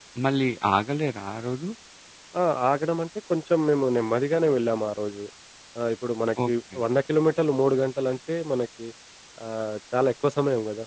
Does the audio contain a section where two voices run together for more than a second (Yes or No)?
No